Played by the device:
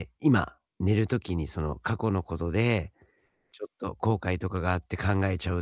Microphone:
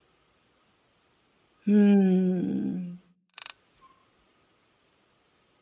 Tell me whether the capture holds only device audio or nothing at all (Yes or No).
No